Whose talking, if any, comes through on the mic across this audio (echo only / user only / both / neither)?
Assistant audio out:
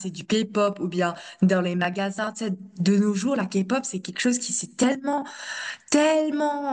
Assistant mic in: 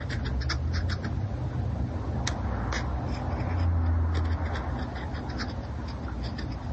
neither